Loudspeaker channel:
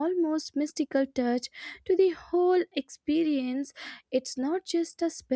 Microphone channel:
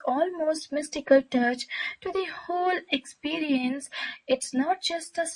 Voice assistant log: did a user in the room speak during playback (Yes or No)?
No